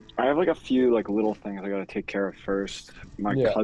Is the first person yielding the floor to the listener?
No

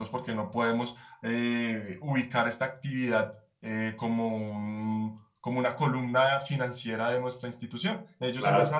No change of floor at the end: Yes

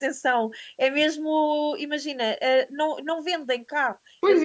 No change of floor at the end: Yes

